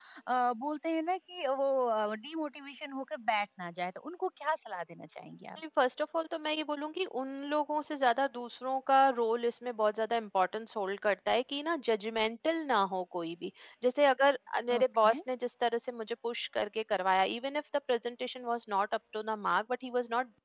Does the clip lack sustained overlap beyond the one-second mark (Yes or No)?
Yes